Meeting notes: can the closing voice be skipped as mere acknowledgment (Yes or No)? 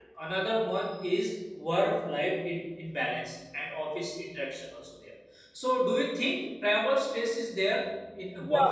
No